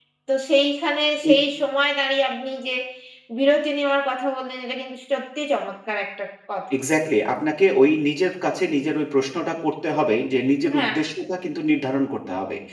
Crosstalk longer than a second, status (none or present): none